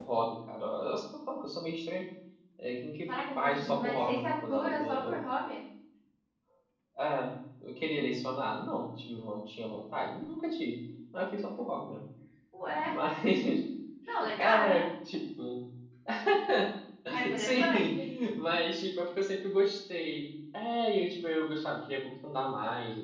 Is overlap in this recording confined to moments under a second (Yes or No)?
No